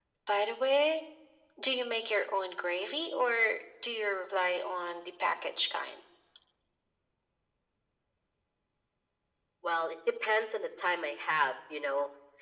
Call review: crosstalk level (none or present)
none